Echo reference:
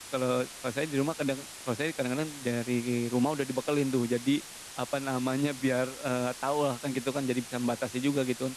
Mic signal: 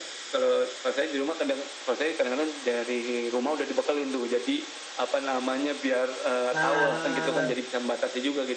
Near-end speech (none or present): present